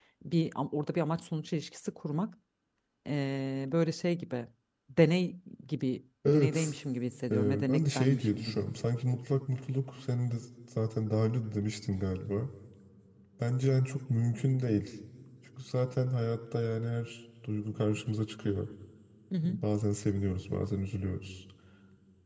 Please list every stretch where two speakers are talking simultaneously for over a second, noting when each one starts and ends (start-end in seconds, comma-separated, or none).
7.3-8.6